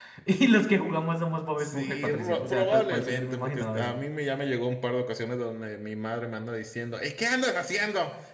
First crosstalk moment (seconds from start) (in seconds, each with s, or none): 1.6 s